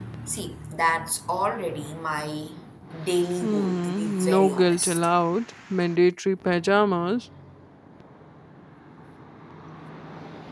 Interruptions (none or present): present